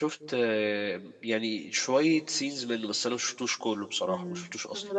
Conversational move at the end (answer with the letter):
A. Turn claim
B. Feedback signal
A